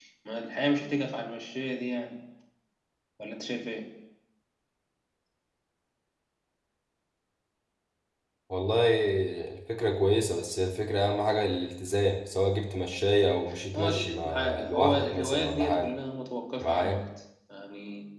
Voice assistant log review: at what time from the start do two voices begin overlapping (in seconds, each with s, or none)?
13.7 s